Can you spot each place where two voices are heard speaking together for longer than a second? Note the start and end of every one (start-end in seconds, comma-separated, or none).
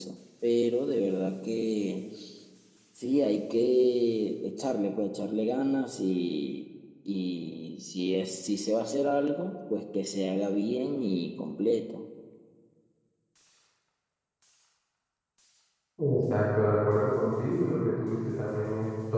none